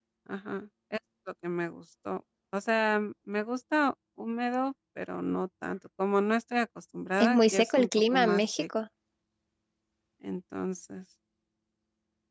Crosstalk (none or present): present